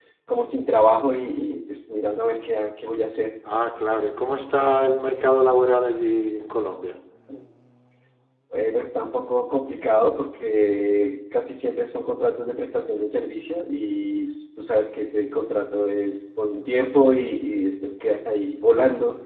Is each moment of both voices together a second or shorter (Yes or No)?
Yes